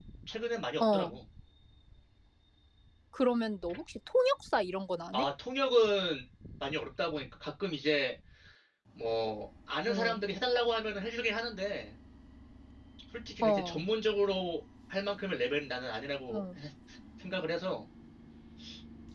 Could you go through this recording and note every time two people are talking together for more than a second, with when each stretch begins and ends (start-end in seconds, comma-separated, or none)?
none